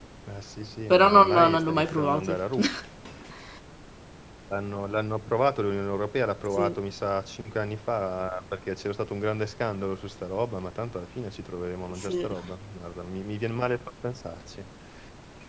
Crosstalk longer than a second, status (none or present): present